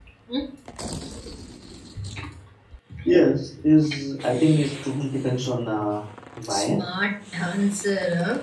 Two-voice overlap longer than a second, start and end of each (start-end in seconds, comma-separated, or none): none